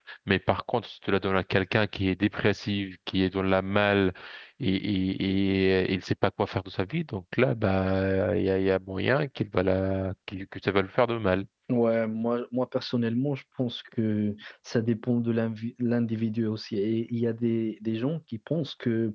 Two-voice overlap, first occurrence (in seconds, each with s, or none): none